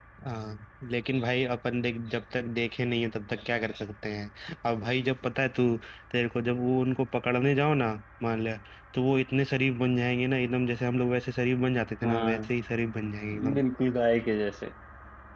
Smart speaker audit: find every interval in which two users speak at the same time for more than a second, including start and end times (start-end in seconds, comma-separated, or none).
none